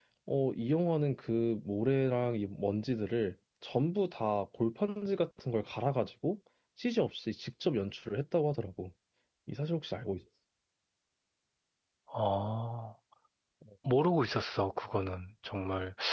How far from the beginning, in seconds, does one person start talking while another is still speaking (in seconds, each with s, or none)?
none